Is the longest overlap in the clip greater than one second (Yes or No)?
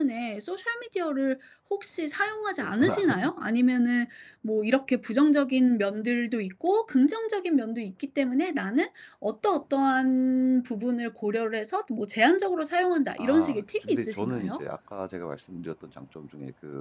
Yes